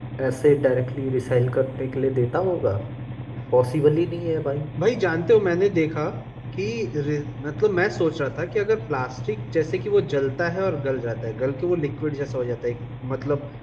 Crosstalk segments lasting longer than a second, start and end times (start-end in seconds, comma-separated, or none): none